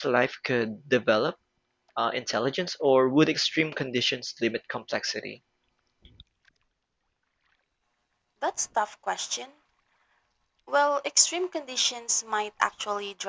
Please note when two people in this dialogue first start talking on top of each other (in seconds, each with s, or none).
none